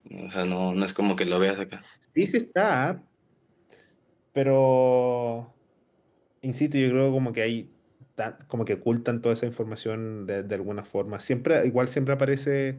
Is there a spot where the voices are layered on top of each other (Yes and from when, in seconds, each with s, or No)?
No